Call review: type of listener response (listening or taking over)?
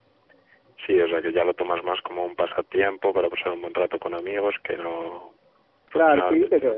taking over